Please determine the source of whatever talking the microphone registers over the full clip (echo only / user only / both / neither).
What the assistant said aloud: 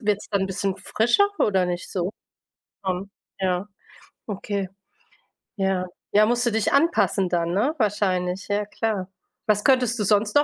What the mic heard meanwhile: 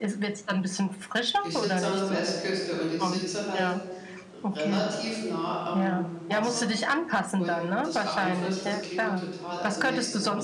both